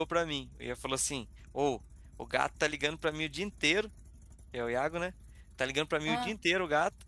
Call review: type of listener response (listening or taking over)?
listening